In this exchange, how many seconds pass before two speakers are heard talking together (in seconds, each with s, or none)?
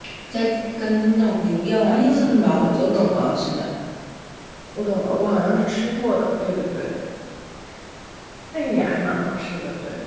1.9 s